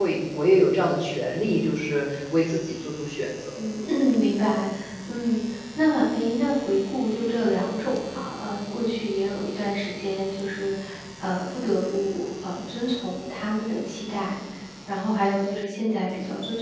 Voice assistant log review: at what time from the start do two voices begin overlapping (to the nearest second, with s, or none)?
none